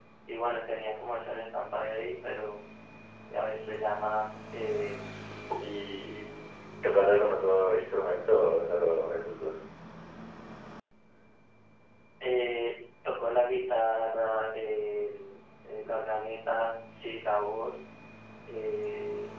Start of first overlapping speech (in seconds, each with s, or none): none